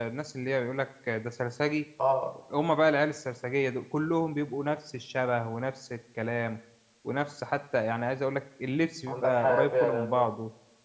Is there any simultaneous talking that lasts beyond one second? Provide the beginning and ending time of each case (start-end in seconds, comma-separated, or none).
9.1-10.3